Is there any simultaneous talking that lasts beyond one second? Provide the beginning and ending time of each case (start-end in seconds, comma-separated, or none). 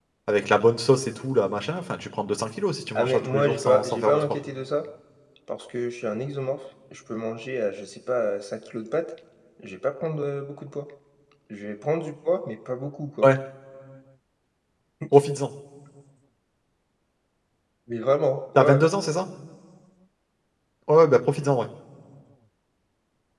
3.0-4.2